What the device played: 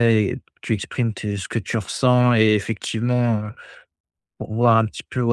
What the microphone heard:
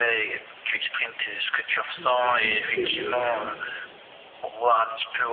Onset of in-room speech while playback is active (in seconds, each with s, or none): 1.9 s